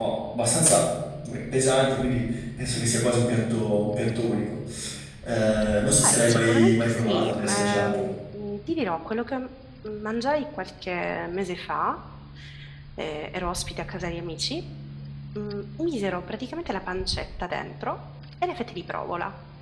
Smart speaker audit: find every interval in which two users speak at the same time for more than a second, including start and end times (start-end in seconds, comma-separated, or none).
6.1-8.0